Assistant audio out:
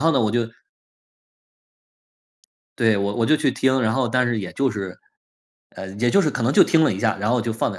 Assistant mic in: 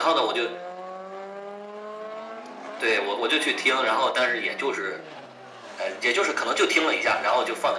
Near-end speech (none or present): none